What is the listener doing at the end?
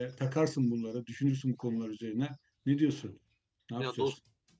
taking over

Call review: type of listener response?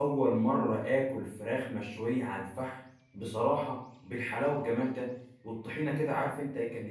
listening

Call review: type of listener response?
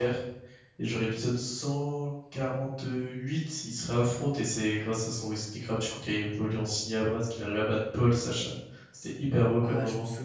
taking over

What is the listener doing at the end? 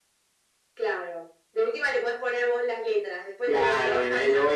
taking over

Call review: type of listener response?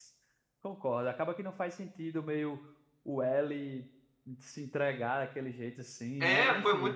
taking over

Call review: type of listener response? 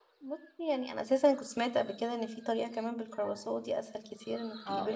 taking over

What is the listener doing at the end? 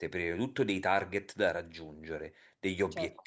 listening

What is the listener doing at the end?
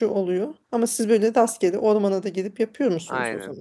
taking over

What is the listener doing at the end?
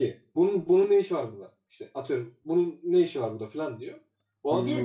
listening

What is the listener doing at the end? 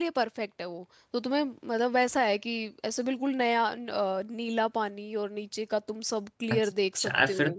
taking over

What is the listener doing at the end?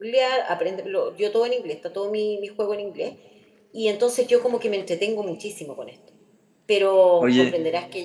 listening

